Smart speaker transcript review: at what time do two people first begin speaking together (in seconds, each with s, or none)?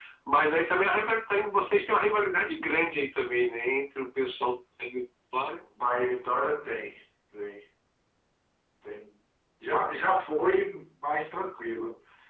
none